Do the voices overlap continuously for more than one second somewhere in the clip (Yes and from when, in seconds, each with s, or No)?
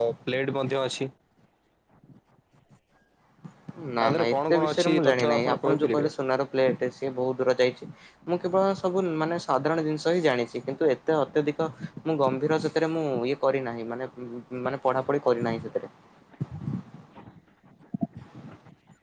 Yes, from 4.0 s